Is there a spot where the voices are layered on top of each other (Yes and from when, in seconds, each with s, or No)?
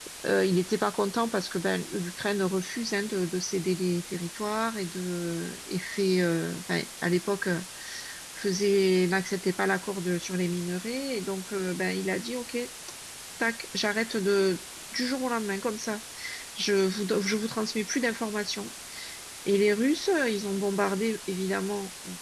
No